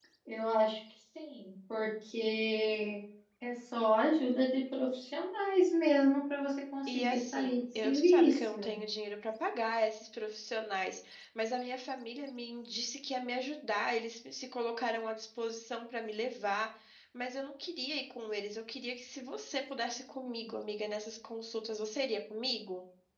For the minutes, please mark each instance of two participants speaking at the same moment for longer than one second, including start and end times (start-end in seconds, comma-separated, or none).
6.9-8.7